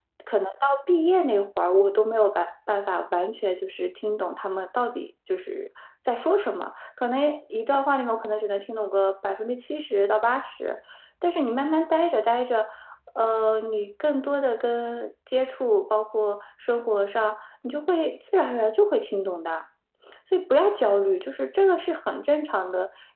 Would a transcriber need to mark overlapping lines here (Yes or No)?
No